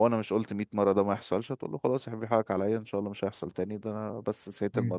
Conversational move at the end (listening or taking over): listening